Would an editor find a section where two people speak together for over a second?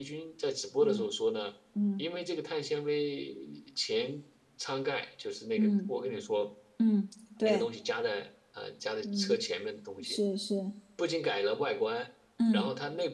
No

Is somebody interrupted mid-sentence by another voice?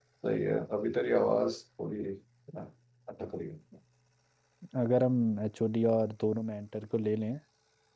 No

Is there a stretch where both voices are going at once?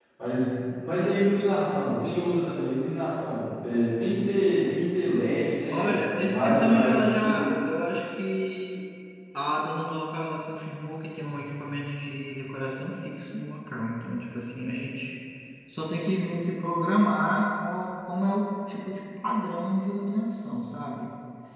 Yes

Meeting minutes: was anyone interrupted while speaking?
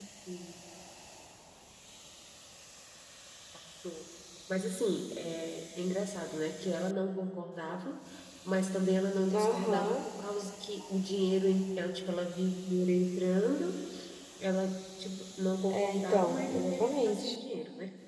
Yes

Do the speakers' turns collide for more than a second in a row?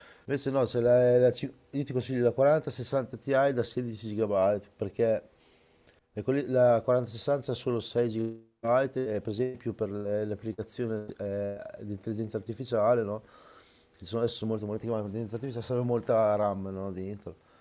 No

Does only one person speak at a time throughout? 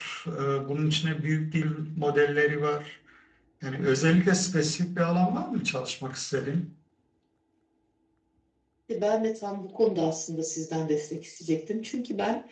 Yes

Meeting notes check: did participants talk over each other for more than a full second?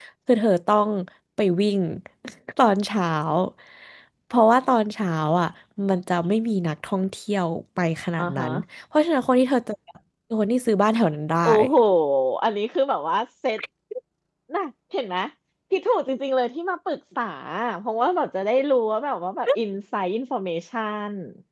No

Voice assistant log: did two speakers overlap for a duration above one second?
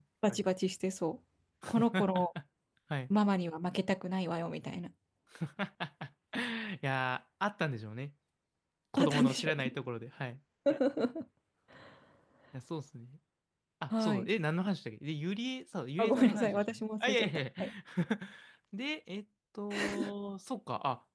Yes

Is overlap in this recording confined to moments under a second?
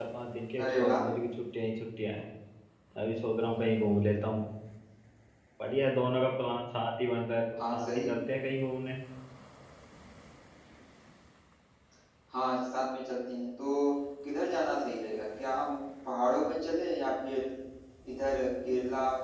Yes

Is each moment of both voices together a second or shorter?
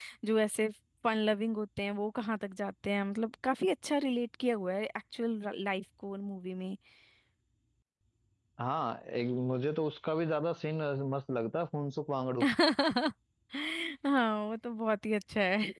Yes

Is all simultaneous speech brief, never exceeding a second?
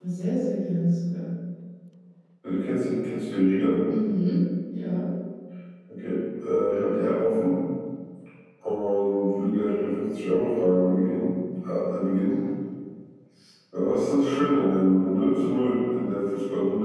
Yes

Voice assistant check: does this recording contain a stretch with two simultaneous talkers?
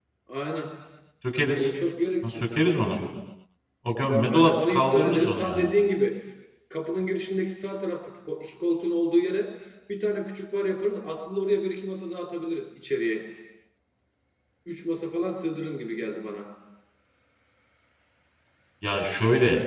Yes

